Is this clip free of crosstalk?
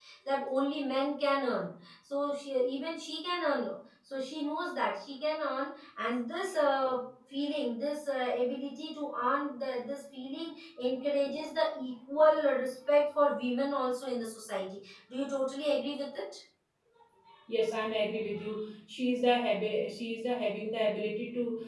Yes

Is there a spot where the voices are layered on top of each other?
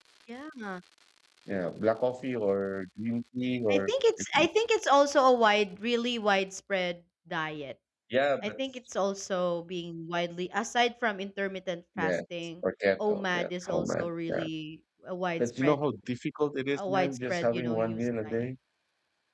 Yes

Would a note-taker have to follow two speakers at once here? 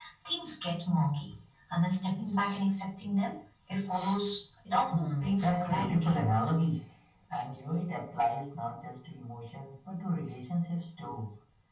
Yes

